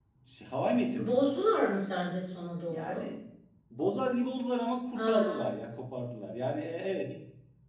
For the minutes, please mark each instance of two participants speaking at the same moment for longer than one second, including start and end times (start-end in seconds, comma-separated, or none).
none